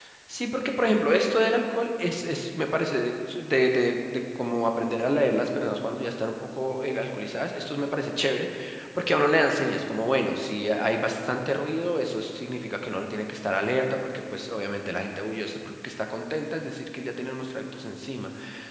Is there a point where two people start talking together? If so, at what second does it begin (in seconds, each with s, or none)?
none